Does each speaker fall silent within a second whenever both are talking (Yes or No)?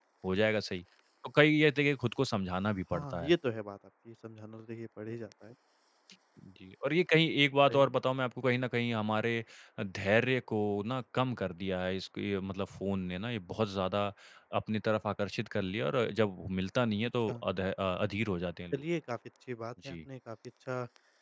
Yes